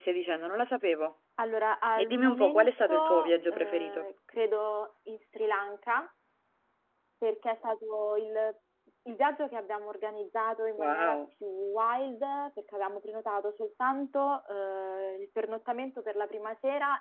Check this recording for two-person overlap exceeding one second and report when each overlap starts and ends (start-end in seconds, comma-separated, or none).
2.0-4.0